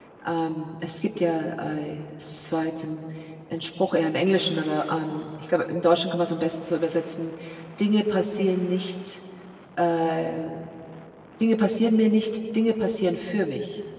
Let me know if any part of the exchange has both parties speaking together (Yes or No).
No